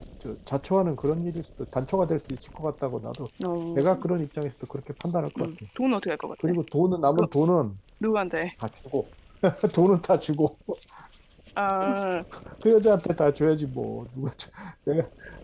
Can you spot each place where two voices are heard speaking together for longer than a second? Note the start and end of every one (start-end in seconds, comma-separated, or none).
none